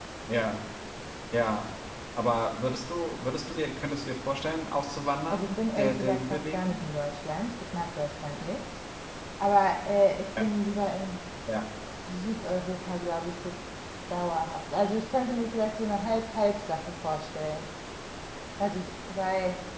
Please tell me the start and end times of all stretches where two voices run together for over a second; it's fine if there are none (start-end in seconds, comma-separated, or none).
5.3-6.8